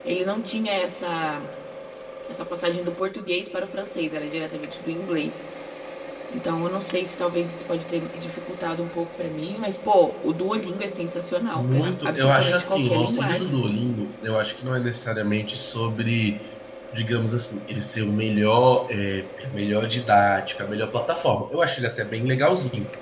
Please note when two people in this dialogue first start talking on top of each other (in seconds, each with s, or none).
11.5 s